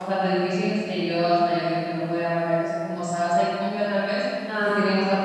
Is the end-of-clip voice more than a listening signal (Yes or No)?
No